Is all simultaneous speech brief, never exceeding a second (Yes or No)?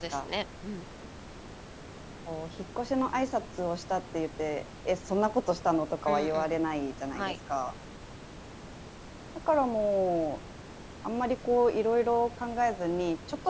Yes